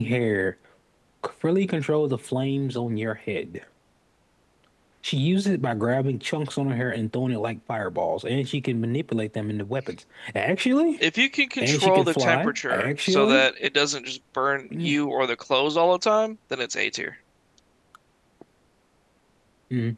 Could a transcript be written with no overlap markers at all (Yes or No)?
No